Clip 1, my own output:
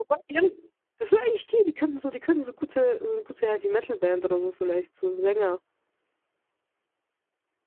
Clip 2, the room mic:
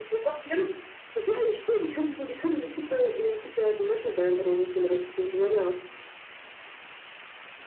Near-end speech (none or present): none